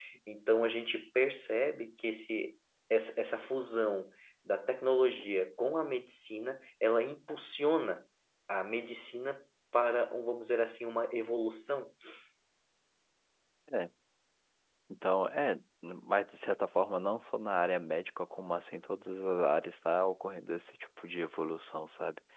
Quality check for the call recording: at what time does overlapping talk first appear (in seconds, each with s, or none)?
none